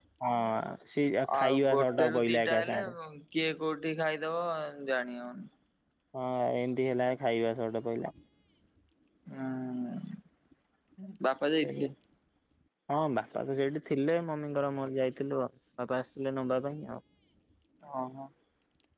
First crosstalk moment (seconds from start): 1.4 s

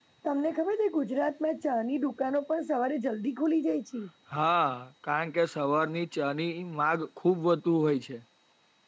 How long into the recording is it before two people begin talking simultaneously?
none

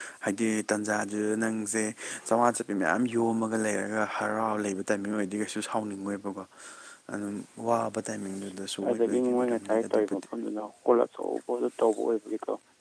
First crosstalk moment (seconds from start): 8.8 s

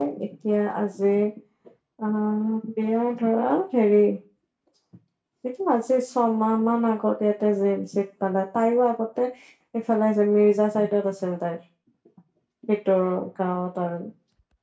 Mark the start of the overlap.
none

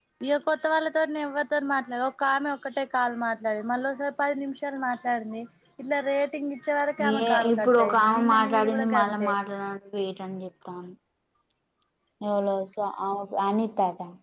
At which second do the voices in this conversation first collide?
7.0 s

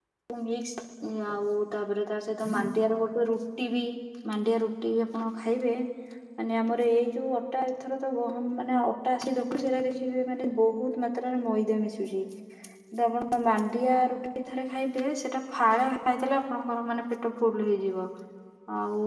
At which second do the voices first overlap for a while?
none

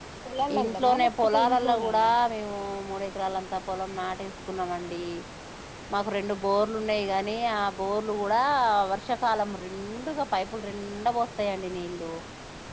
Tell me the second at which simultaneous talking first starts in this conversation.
0.6 s

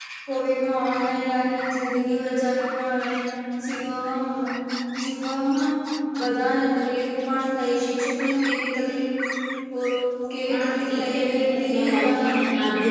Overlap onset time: 10.5 s

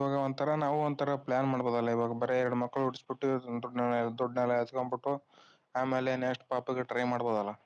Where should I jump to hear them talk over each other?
none

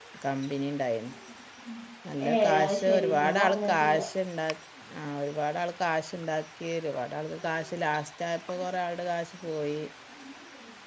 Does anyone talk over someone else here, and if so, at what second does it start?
2.3 s

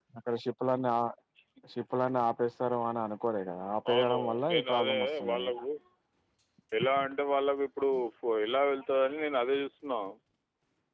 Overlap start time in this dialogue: 3.9 s

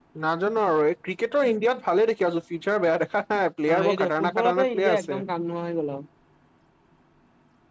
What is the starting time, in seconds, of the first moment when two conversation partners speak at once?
3.9 s

